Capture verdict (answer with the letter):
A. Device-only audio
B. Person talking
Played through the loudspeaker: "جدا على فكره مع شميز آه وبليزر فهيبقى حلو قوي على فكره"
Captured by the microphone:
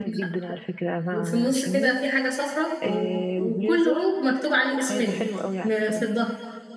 B